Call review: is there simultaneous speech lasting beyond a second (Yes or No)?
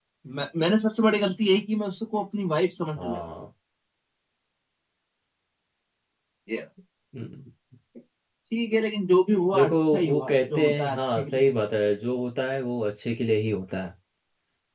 Yes